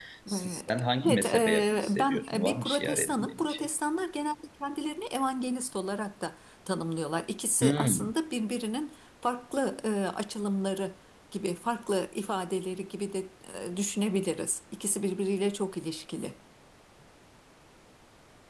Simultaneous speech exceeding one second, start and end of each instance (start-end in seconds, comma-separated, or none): 1.0-3.7